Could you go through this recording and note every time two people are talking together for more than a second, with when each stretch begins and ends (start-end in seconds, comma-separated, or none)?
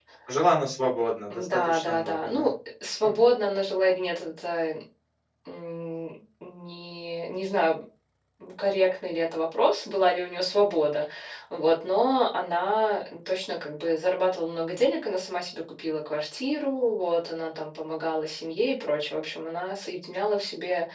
1.3-2.5